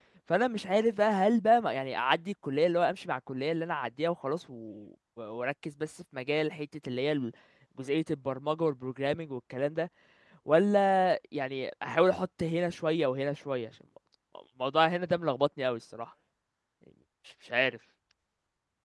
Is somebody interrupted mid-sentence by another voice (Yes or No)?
No